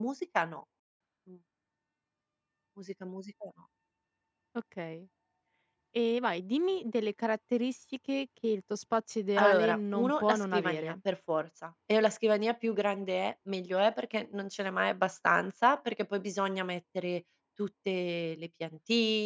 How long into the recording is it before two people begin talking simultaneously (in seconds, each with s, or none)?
9.4 s